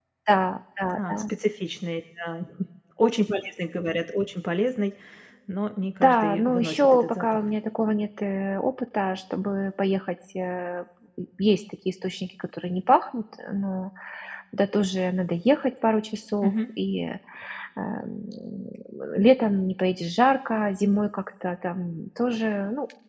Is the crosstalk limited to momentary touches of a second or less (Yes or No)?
No